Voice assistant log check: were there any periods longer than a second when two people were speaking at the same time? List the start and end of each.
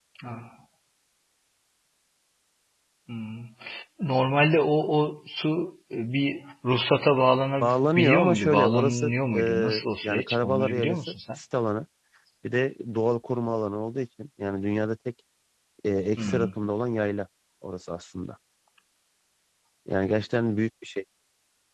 7.6-11.4

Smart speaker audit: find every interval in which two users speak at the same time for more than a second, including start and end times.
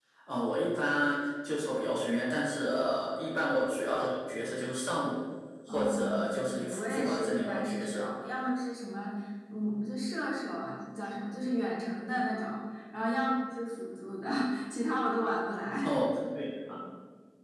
5.7-8.1

